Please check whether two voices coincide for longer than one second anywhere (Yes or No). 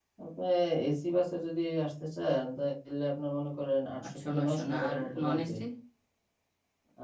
Yes